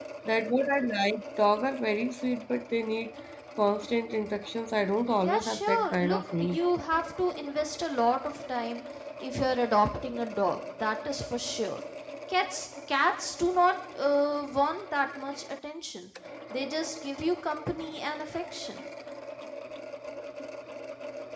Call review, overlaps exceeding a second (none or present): present